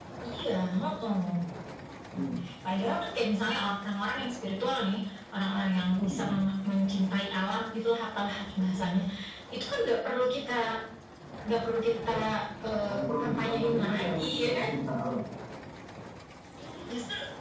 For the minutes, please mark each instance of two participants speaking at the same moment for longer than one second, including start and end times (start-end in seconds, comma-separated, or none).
12.9-14.7